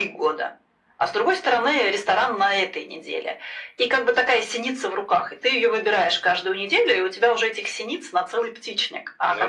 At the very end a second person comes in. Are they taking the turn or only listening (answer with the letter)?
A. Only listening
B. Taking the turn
A